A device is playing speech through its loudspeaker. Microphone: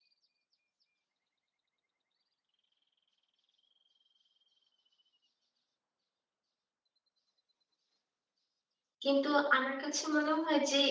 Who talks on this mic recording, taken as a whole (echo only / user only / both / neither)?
user only